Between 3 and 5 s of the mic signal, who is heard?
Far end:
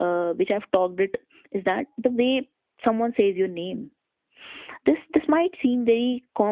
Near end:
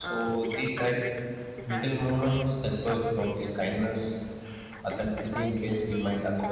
both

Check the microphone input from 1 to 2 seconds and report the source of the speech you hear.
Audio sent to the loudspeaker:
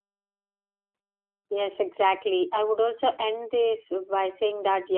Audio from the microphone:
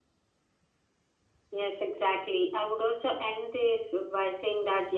echo only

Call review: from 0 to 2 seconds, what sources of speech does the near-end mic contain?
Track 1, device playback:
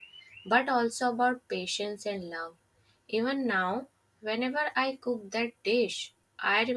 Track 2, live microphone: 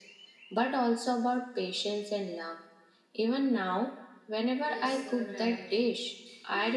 echo only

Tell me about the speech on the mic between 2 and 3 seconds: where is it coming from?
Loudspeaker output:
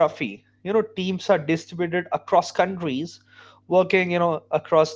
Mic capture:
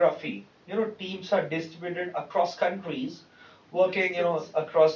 echo only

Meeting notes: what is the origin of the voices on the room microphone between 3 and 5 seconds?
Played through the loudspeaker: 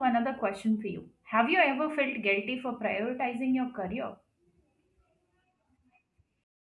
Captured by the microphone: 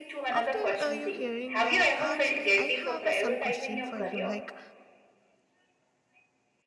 both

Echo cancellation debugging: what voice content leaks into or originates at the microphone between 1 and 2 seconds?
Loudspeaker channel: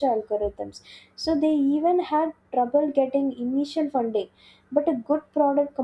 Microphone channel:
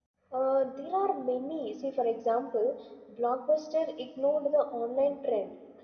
user only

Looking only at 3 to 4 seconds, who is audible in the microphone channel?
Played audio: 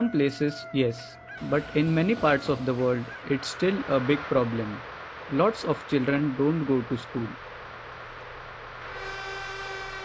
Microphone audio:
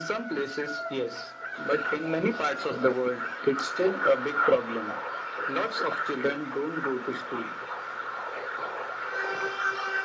echo only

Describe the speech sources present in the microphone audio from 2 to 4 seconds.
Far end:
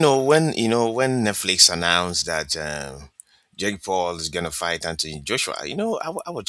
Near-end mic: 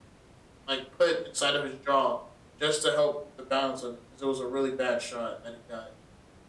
user only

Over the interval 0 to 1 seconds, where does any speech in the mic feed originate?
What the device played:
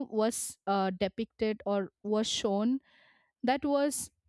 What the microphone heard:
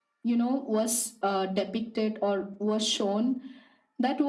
echo only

